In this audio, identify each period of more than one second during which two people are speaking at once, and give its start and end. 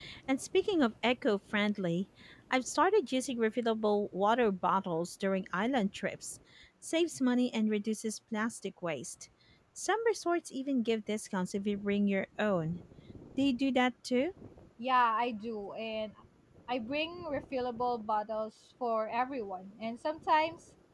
none

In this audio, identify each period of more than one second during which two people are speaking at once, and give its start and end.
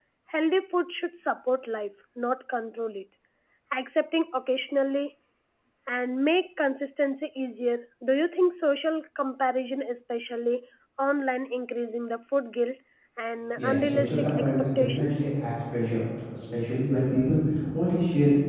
13.6-15.1

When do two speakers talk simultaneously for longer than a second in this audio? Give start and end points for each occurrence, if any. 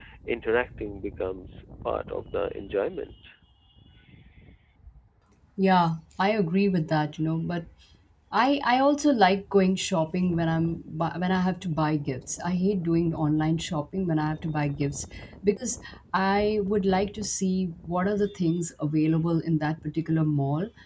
none

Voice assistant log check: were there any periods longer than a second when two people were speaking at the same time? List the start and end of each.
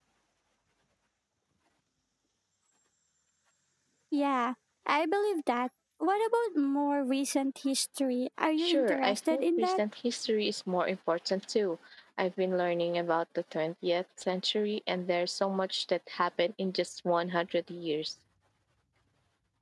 8.6-9.8

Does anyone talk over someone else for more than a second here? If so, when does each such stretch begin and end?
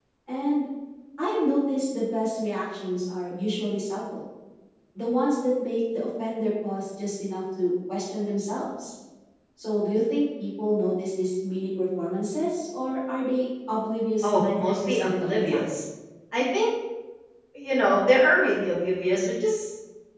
14.2-15.7

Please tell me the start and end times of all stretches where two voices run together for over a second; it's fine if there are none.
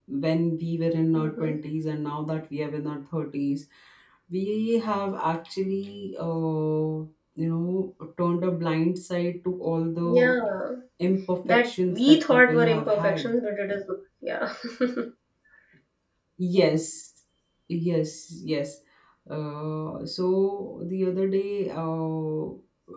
11.5-13.3

